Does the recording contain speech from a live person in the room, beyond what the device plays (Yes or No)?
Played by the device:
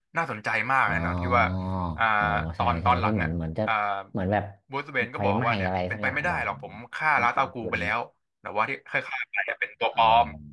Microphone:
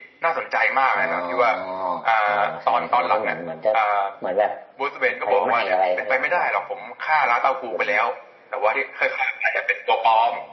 No